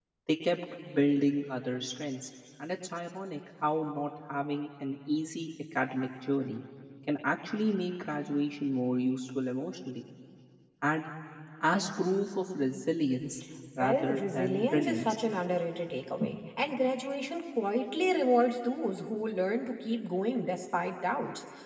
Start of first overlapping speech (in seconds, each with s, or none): 13.8 s